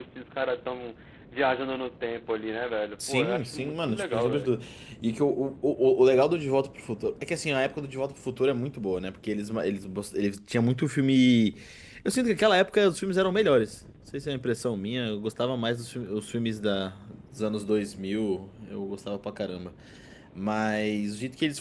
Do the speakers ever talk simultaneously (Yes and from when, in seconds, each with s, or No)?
Yes, from 2.9 s